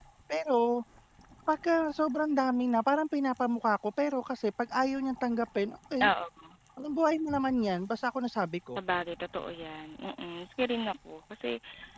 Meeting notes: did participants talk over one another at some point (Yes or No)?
No